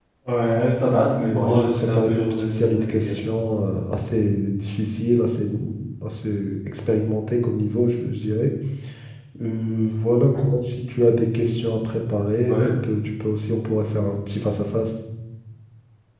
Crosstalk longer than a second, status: present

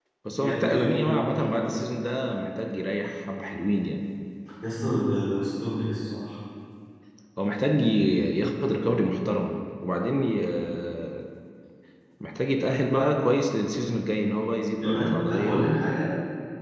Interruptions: present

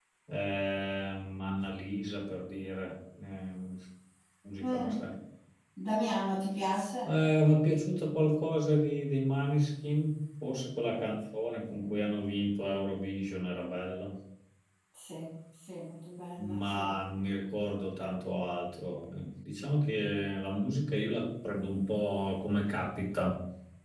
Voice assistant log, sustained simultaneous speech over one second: none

